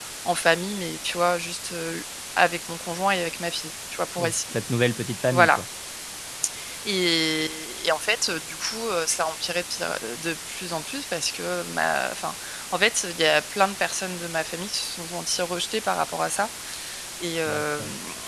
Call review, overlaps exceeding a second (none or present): none